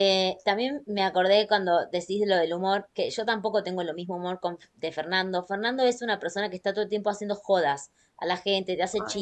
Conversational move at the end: listening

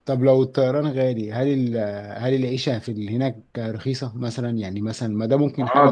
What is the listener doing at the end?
taking over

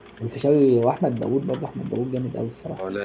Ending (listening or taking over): listening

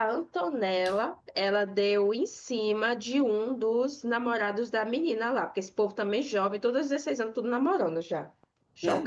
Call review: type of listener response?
taking over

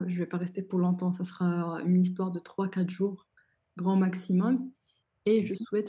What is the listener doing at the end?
listening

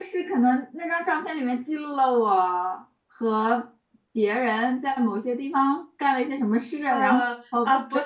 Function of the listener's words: taking over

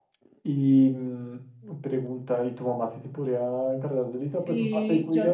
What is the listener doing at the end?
taking over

